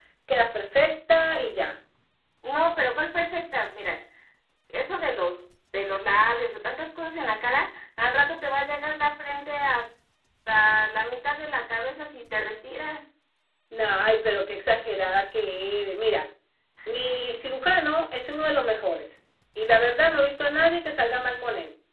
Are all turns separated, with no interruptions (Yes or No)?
Yes